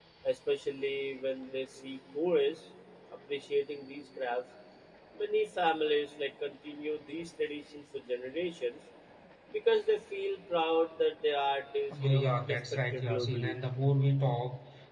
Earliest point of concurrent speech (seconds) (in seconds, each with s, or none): 11.9 s